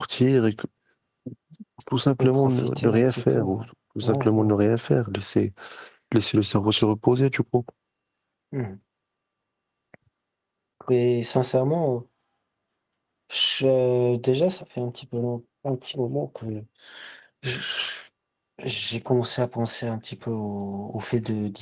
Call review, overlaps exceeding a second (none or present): present